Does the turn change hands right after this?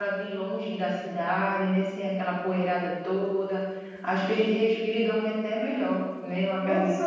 Yes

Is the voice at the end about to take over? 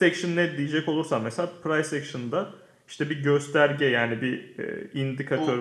No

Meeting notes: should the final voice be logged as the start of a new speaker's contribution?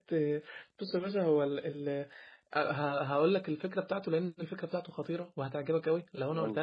No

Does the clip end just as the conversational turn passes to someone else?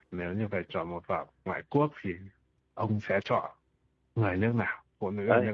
Yes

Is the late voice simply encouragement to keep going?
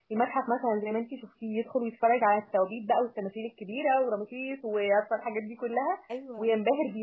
Yes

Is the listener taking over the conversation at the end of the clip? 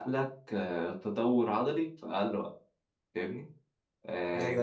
Yes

